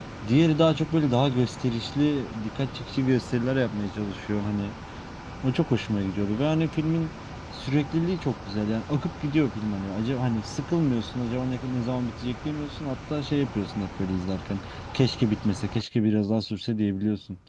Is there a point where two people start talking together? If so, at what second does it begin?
none

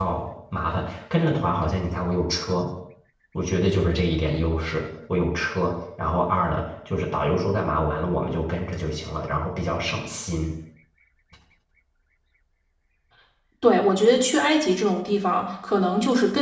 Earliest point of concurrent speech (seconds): none

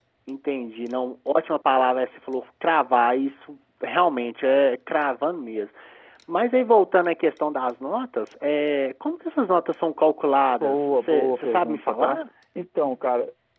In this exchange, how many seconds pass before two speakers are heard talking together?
10.6 s

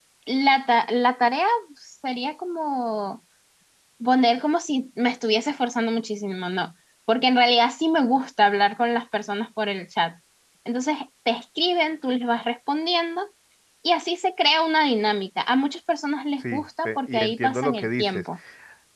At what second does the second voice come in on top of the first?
16.4 s

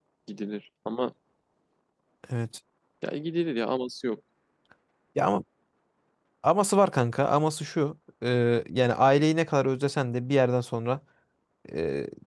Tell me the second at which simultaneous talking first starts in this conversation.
none

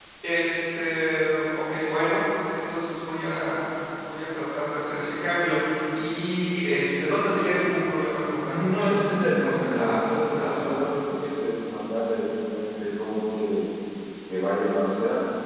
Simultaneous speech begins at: 8.3 s

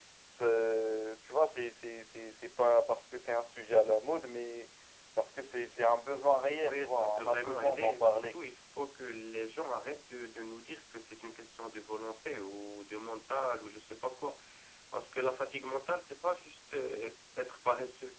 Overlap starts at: 6.6 s

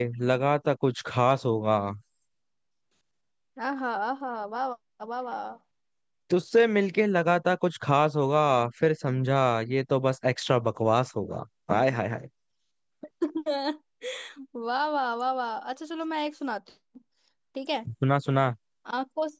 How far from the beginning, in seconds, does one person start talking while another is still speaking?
none

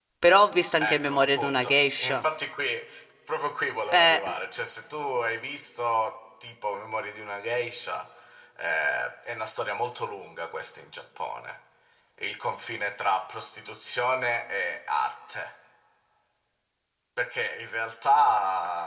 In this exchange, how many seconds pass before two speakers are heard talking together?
0.8 s

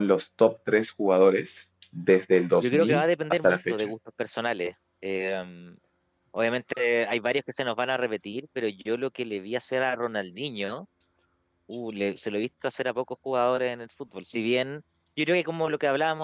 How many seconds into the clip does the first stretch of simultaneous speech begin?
2.6 s

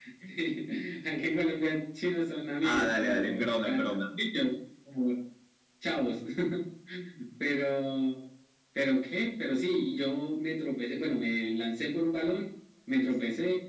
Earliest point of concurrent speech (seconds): 2.6 s

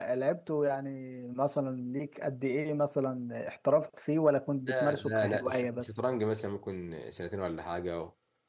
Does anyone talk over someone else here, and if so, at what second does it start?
4.6 s

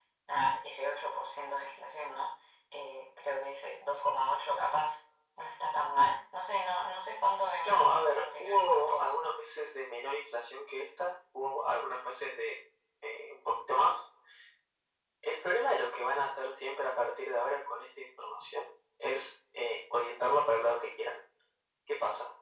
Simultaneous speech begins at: 7.7 s

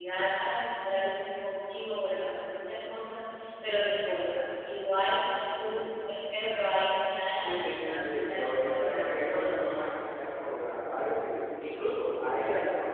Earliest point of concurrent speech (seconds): 7.4 s

